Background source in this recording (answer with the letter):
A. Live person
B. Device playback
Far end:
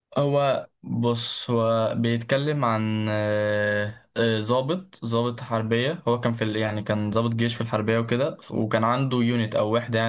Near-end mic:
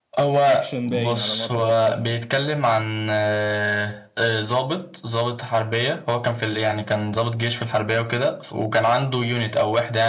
A